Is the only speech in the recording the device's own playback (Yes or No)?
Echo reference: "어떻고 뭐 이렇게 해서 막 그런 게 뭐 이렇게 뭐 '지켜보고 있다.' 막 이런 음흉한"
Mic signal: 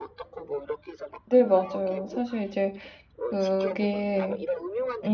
No